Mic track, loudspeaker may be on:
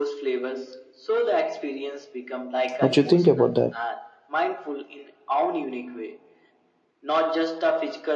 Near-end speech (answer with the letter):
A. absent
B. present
B